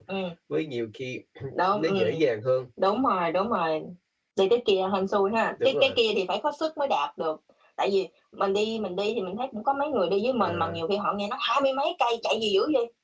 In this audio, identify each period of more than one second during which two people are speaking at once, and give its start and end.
none

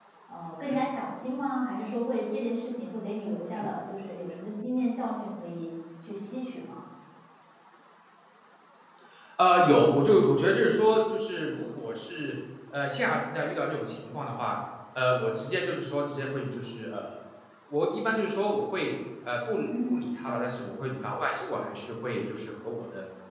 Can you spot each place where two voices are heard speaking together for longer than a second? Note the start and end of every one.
none

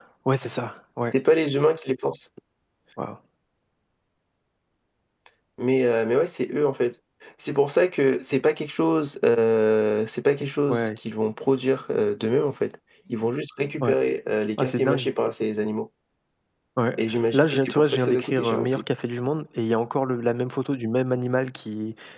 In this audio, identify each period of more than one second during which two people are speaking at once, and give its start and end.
17.3-18.8

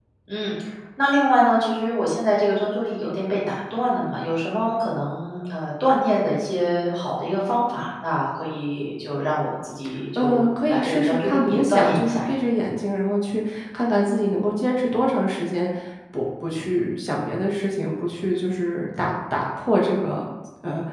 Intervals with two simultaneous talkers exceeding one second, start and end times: 10.2-12.3

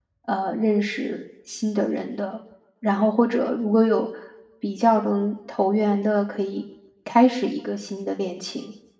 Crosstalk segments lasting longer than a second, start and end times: none

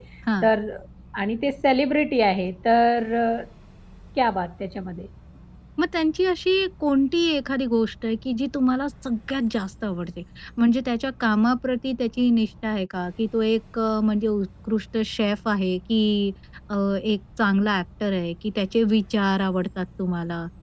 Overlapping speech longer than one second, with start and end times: none

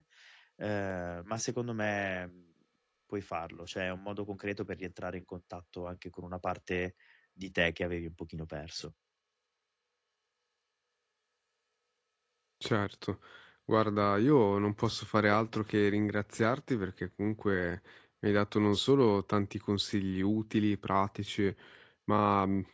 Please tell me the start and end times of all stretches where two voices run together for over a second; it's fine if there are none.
none

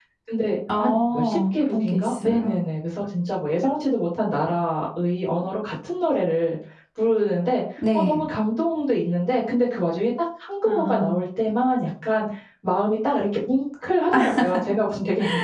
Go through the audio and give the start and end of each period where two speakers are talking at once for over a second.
0.8-2.6

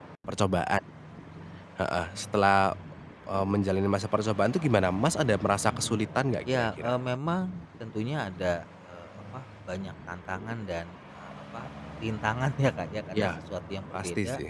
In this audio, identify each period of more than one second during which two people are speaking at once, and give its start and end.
none

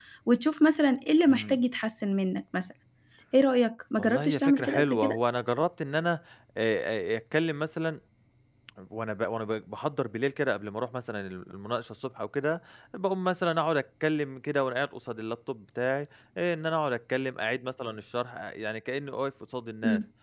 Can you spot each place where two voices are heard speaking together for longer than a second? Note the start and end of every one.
4.0-5.2

